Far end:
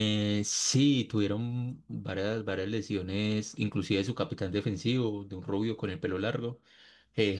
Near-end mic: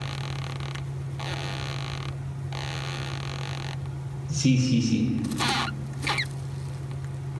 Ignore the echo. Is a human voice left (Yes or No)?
Yes